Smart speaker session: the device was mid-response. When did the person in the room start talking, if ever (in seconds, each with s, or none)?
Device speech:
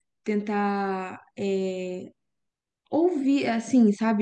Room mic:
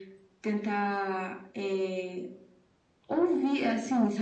none